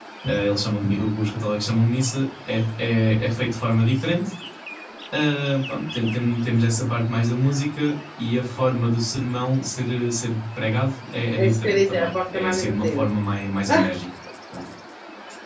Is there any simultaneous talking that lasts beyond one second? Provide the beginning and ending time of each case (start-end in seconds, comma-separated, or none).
11.4-13.1